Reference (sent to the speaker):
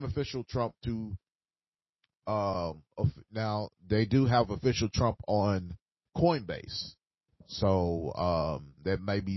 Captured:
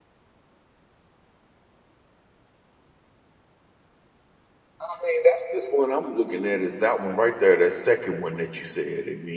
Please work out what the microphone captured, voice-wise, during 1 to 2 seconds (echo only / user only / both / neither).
neither